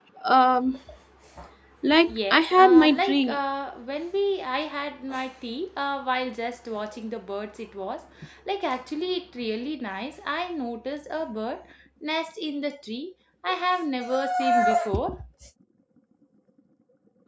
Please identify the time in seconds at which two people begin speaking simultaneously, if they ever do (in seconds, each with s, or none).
2.1 s